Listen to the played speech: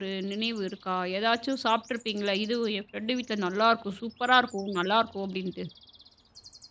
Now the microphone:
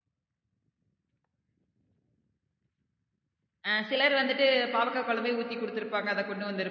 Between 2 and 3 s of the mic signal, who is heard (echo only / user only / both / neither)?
neither